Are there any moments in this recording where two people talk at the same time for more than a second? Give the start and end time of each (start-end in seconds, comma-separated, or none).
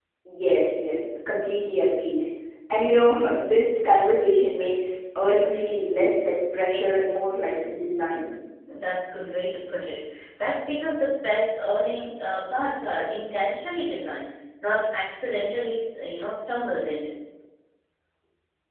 none